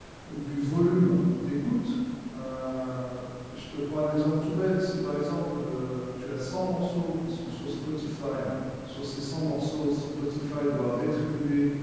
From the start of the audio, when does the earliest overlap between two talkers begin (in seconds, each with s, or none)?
none